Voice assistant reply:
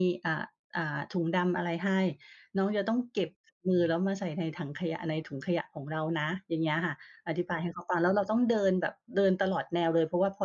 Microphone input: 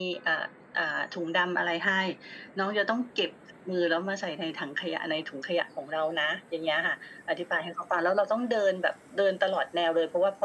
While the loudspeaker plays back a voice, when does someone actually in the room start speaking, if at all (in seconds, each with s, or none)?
none